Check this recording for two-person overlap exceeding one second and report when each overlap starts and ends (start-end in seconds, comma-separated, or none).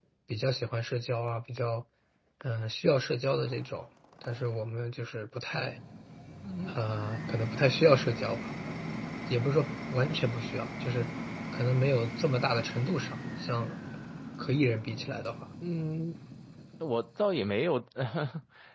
none